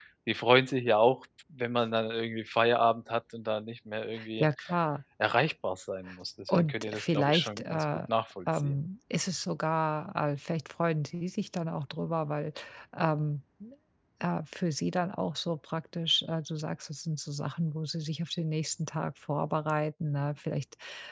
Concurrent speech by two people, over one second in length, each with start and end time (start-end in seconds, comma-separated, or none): 6.5-7.8